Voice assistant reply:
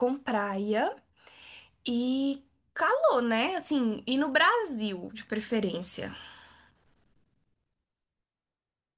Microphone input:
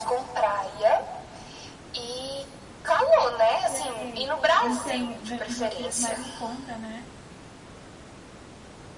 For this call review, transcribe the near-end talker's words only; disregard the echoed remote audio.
Sei. Onde tem, vende umas coisas mais em conta, né?

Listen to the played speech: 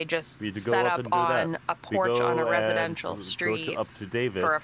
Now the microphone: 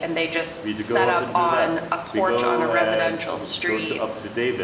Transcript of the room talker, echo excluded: none

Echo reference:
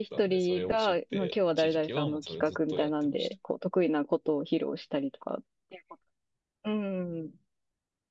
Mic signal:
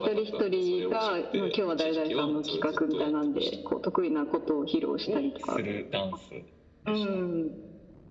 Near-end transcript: をするダンスでした。

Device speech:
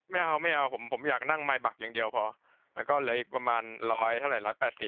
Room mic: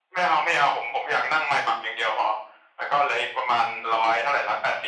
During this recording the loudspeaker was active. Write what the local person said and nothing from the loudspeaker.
none

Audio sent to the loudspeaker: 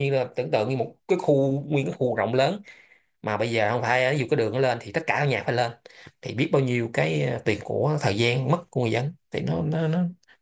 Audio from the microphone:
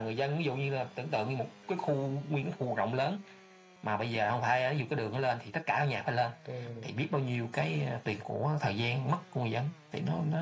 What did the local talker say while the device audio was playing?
ừ

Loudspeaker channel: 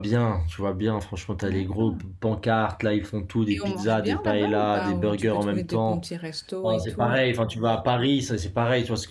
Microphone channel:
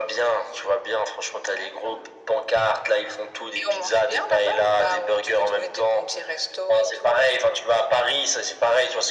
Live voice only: none

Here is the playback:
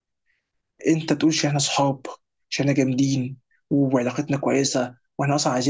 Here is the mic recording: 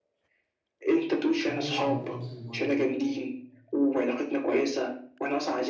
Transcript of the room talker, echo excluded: هنطلع انت تمسك المايك

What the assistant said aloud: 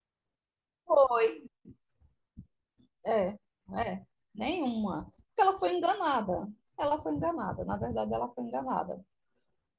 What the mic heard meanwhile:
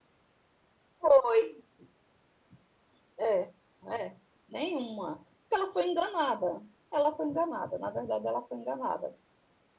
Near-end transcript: none

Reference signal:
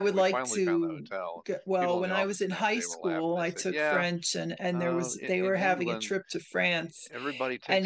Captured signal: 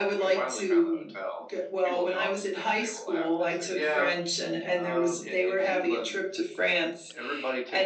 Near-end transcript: none

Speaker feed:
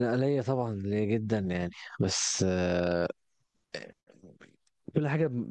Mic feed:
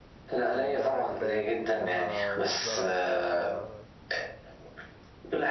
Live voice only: كلها جبال كلها زرع كلها ح-

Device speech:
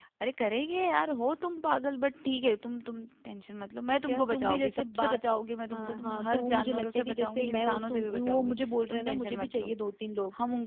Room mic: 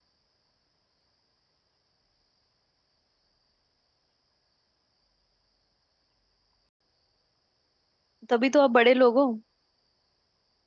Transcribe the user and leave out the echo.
तभी तो आप बड़े लोग हो

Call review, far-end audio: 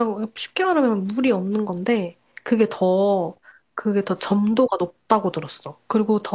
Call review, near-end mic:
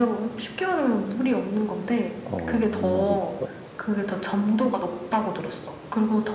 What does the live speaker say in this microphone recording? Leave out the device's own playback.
어, 이 맛이 있어.

